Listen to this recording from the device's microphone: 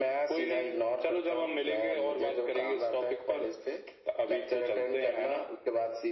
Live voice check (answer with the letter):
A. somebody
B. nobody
B